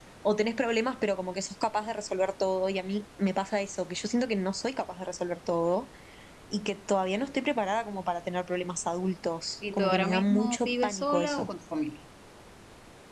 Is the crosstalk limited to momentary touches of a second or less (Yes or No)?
No